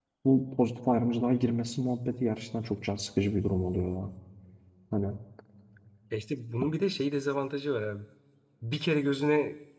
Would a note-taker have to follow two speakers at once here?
No

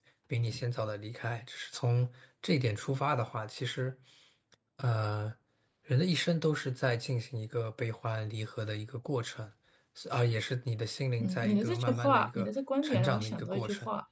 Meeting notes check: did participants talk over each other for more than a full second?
Yes, from 11.2 s

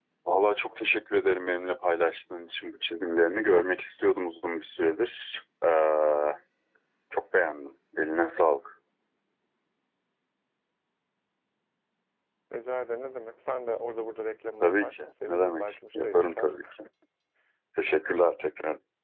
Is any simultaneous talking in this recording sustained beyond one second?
Yes, from 14.6 s

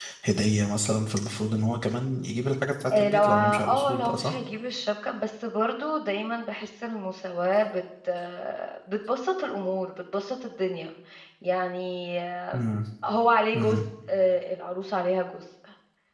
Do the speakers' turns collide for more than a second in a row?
Yes, from 2.9 s

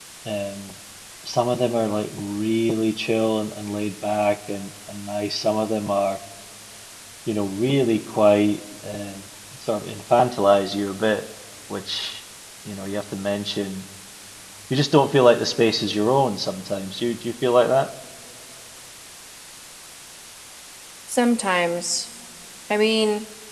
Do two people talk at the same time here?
No

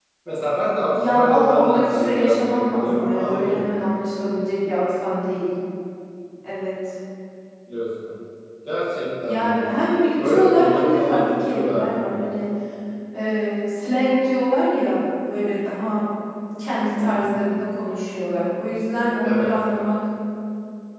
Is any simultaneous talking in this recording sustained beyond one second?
Yes, from 0.9 s

